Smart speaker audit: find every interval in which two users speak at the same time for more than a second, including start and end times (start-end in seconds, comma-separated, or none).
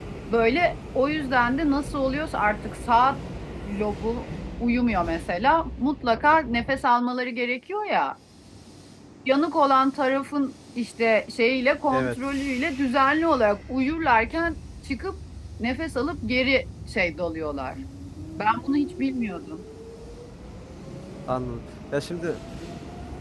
none